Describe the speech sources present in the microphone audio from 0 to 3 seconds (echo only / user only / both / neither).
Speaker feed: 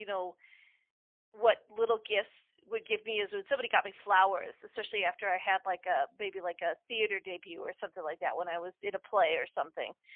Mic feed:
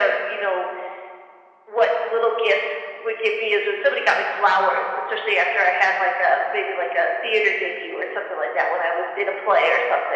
echo only